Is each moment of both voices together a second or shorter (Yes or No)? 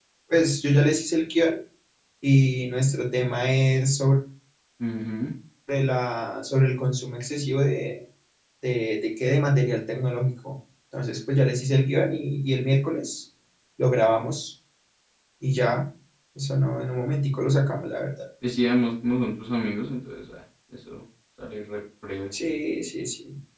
Yes